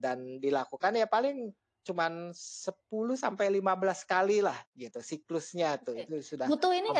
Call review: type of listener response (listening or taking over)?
taking over